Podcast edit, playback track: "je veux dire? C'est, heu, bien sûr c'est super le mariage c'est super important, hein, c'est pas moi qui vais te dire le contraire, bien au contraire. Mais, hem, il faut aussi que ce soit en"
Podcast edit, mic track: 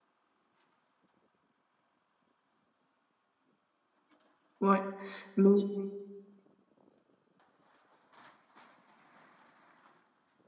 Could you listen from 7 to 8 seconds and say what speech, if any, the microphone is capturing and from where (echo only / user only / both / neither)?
neither